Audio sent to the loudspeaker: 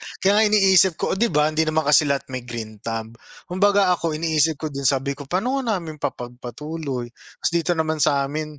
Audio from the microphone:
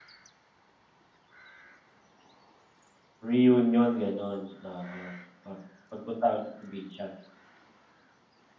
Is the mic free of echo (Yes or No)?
Yes